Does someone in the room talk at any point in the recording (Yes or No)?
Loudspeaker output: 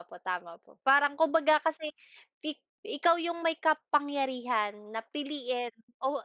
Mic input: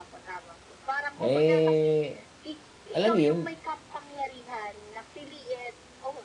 Yes